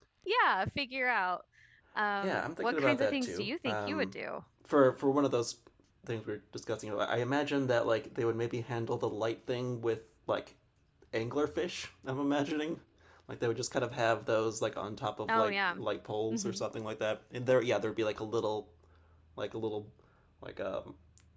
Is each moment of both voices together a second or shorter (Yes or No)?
No